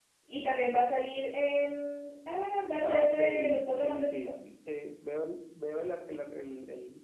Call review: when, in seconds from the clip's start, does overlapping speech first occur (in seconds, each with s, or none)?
2.8 s